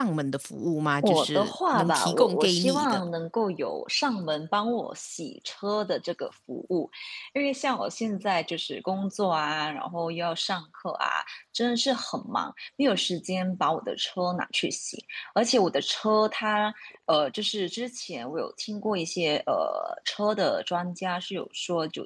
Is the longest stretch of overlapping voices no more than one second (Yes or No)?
No